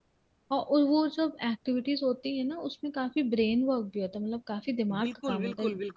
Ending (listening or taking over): taking over